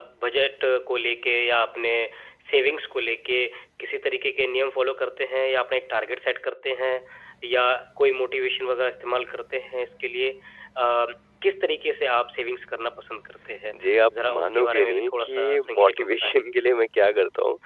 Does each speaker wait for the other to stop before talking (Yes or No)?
No